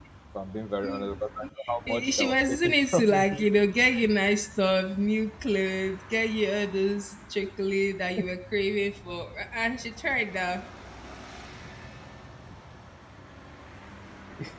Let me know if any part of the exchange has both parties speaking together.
Yes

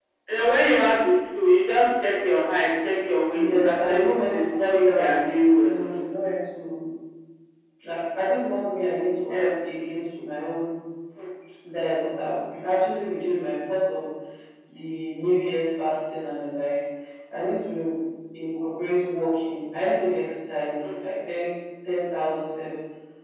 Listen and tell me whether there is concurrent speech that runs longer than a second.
Yes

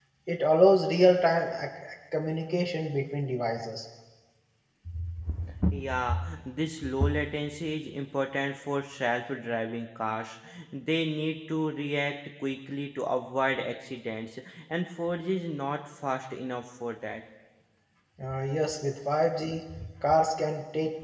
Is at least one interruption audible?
No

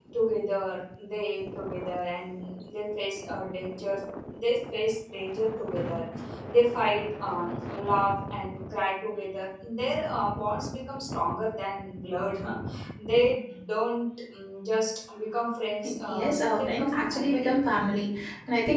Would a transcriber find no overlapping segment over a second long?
No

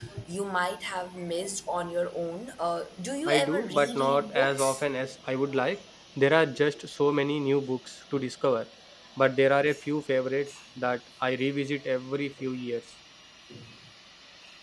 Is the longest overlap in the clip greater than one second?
Yes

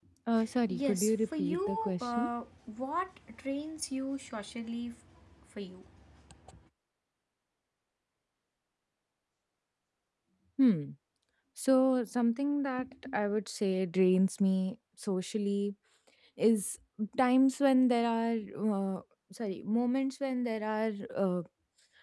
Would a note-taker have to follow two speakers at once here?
Yes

